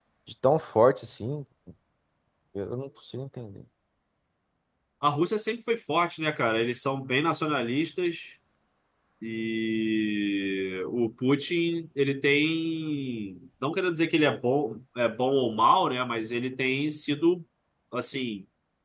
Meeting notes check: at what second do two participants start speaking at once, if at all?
none

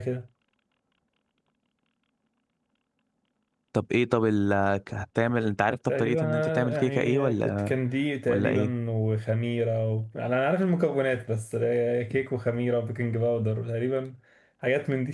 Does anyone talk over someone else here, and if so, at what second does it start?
6 s

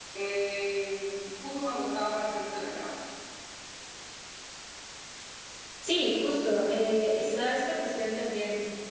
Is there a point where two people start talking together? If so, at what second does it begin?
none

